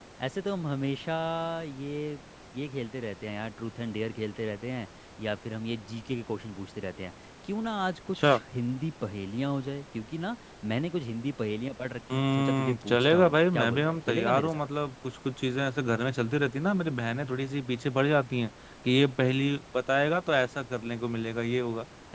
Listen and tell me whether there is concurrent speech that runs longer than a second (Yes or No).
Yes